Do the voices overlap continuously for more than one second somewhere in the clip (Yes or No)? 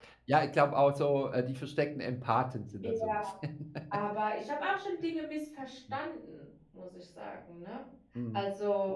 No